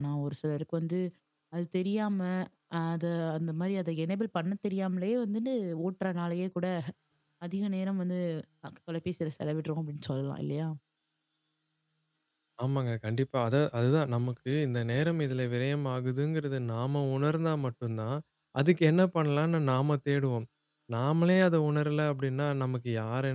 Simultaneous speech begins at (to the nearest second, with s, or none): none